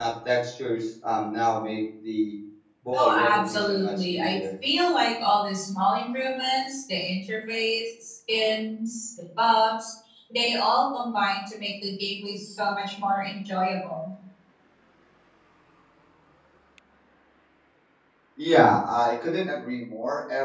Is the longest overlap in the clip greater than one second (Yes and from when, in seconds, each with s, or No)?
Yes, from 2.9 s